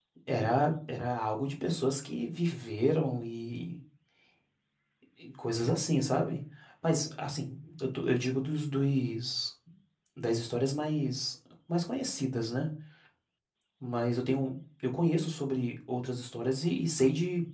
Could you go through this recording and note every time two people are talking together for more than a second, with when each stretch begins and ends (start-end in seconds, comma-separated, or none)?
none